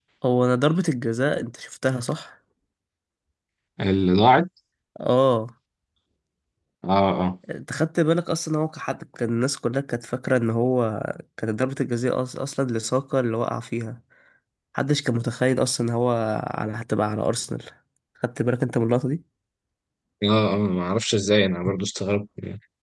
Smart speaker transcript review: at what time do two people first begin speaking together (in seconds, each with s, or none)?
none